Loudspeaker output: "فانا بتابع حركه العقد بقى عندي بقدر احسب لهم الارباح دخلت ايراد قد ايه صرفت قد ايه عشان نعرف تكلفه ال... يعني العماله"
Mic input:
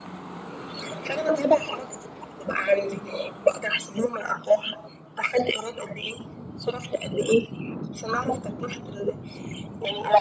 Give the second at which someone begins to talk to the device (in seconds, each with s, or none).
none